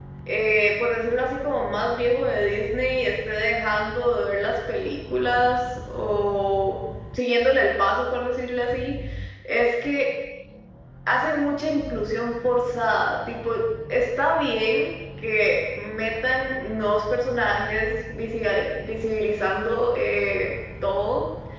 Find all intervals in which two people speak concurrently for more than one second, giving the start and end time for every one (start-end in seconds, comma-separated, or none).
none